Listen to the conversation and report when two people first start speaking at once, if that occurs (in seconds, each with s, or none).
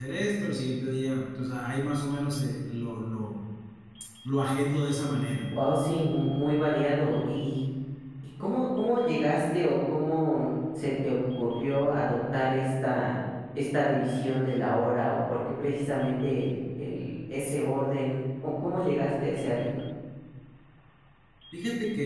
none